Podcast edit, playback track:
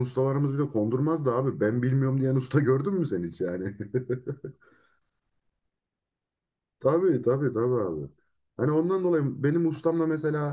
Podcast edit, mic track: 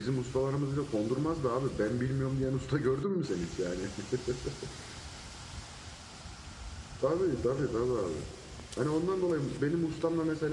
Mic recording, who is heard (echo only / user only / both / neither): echo only